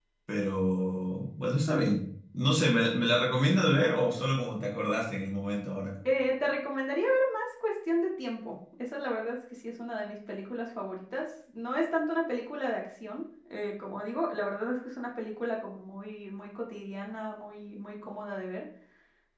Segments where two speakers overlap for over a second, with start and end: none

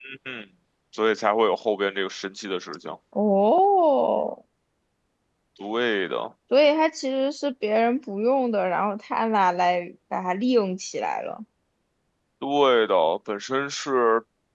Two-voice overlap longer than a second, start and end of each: none

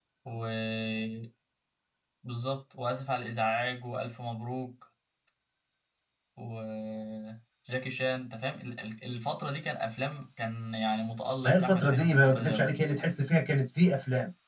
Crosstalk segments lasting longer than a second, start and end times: 11.4-12.7

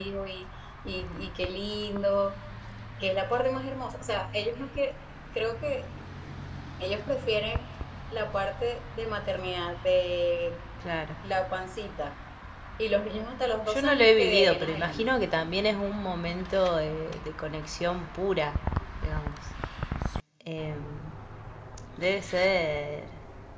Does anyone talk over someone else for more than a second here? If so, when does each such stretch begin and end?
13.7-15.1

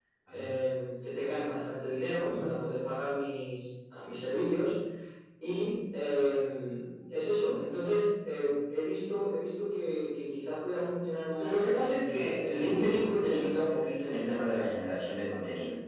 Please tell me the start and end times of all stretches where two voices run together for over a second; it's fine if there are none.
11.4-13.6

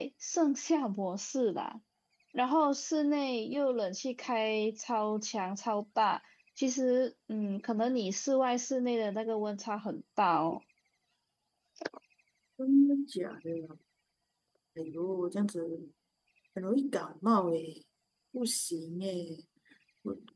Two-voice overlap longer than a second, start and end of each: none

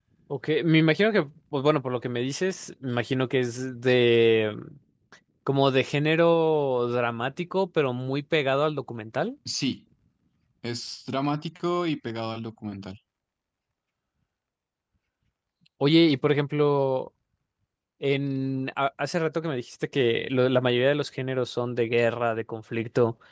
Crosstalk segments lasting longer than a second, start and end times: none

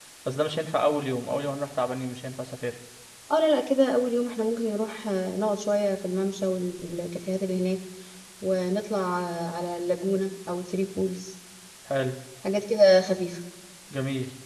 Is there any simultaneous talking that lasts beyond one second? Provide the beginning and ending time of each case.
none

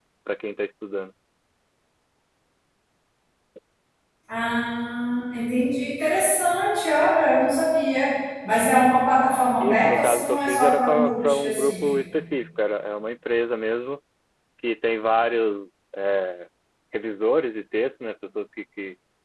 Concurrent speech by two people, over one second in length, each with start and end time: 9.6-11.9

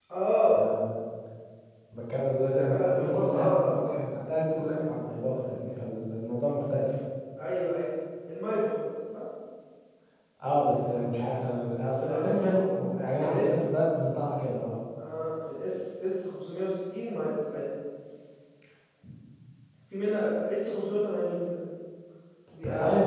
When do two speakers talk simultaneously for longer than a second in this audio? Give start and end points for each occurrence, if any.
2.7-4.0

